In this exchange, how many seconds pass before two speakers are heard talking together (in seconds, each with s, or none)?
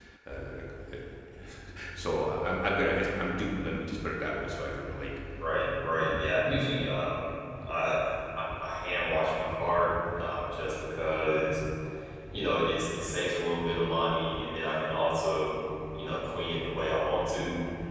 none